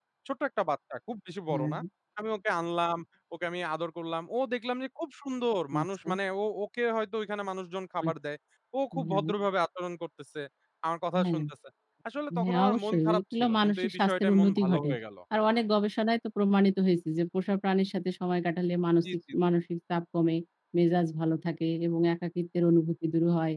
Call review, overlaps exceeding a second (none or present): present